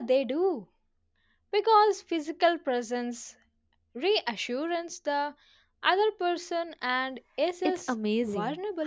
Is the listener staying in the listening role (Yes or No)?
No